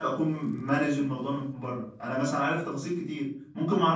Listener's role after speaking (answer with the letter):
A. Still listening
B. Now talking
A